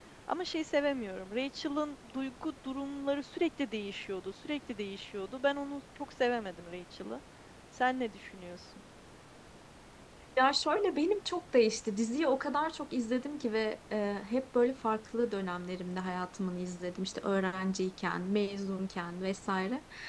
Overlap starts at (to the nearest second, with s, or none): none